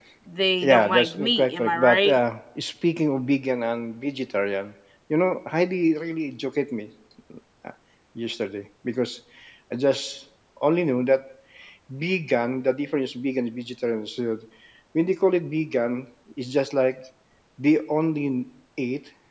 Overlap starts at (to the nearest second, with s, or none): 1 s